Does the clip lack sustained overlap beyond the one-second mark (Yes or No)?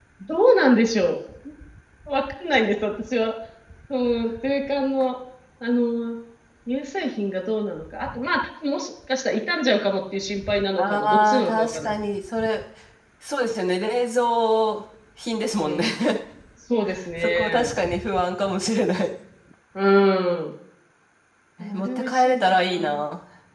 No